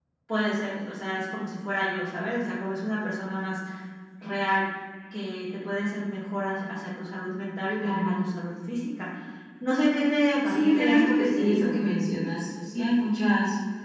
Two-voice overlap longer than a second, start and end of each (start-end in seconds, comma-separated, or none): 10.4-11.8